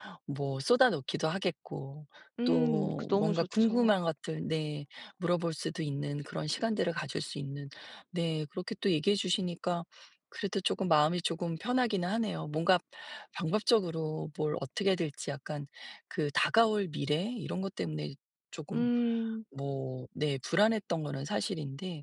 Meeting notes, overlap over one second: present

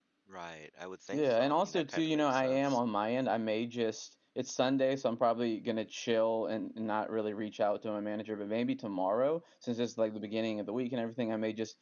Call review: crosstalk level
present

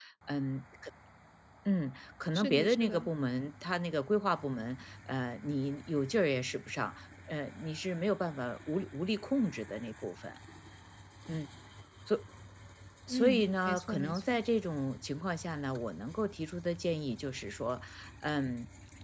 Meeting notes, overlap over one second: present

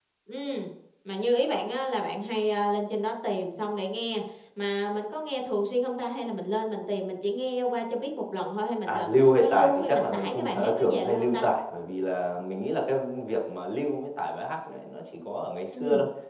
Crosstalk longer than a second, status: present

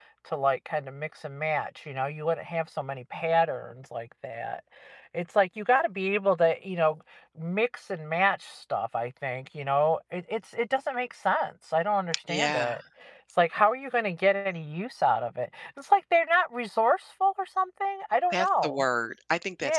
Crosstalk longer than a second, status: none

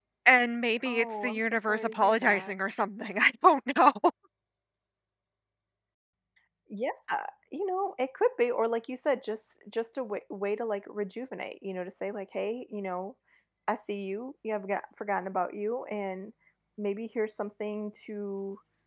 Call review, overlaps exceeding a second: present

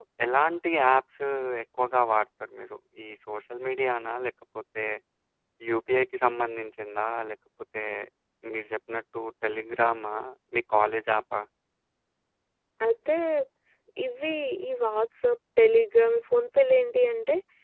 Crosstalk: none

